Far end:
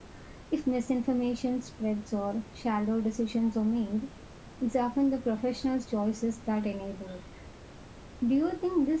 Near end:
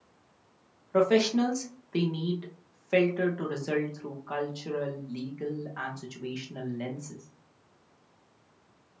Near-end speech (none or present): present